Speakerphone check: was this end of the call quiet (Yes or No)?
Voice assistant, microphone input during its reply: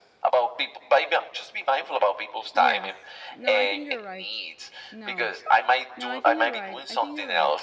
No